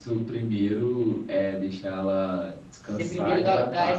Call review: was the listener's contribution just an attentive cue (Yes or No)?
No